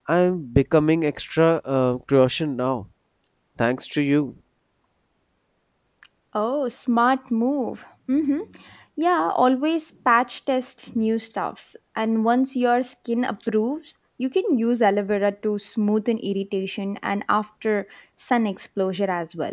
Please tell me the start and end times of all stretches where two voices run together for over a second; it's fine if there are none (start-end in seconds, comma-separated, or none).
none